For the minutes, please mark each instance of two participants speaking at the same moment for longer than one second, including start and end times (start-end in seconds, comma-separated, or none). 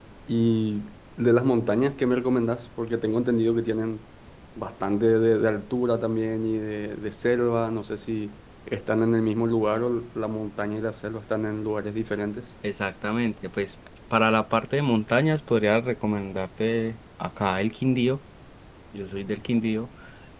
none